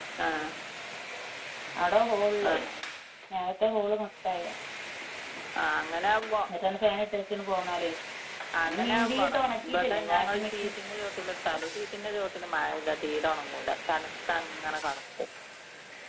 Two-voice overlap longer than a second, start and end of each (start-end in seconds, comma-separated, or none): 8.7-10.7